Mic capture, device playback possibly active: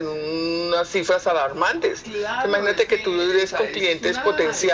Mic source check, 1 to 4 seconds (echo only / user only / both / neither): both